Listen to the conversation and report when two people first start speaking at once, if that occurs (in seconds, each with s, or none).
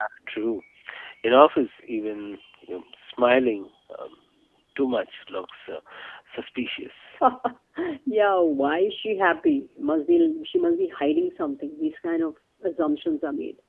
none